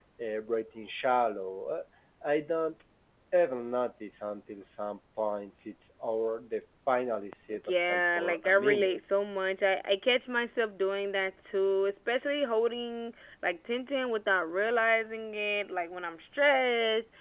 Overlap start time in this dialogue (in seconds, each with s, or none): 7.5 s